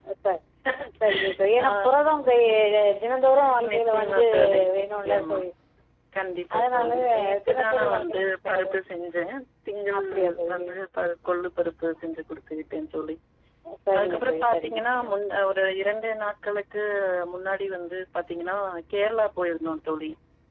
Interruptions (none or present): present